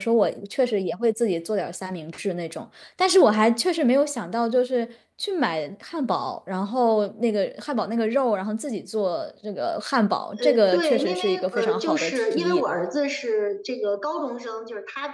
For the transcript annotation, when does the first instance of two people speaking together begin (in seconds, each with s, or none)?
10.4 s